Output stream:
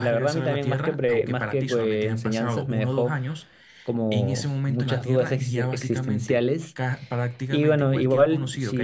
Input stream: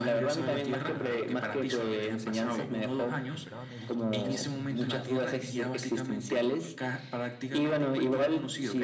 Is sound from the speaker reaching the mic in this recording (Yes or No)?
Yes